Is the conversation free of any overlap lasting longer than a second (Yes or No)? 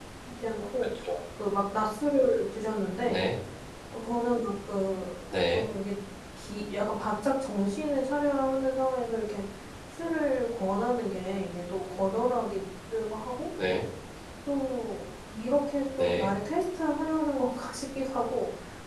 Yes